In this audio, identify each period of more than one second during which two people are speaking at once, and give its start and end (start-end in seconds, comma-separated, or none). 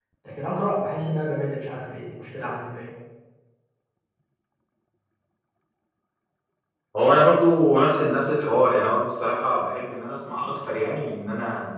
none